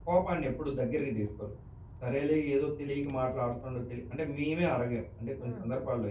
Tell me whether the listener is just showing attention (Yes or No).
Yes